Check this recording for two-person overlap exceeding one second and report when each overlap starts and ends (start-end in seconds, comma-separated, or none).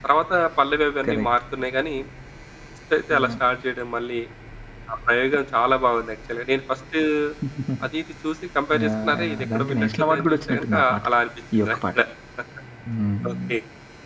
8.8-11.1